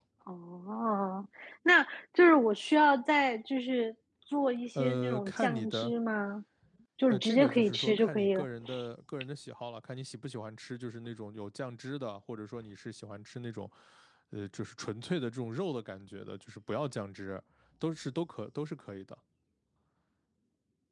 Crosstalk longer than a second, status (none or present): present